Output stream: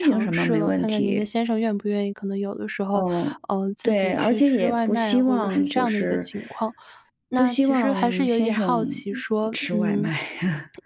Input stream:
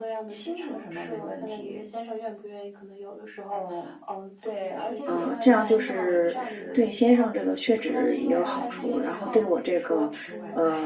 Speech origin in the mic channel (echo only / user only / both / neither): both